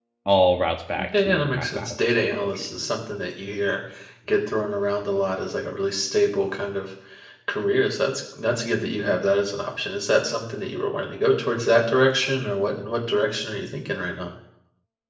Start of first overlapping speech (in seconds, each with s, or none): 1.2 s